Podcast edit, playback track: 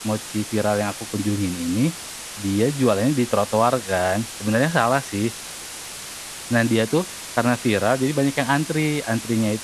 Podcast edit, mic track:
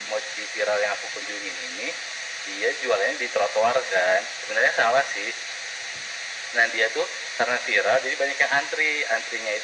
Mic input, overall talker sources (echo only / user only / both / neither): echo only